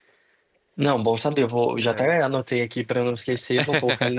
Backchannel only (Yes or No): Yes